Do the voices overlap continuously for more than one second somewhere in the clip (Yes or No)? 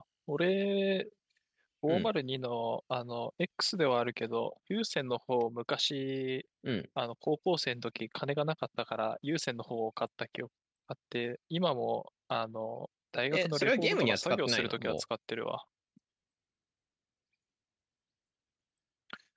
Yes